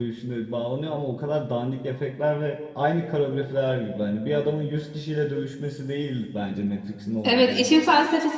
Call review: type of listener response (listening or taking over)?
taking over